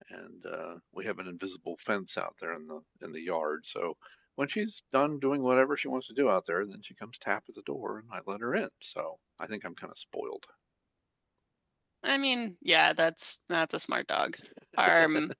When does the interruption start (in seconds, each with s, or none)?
none